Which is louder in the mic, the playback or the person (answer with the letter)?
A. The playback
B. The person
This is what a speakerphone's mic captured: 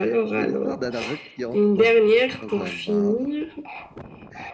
A